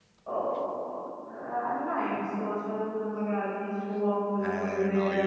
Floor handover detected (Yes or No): Yes